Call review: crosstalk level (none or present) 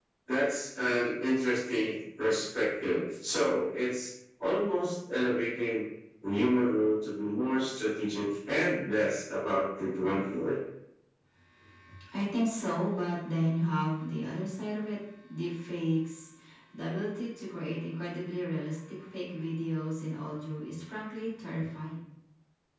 none